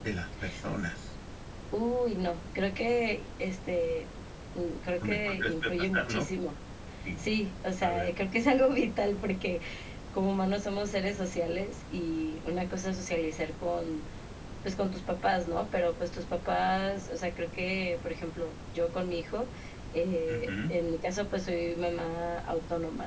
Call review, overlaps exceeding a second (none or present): present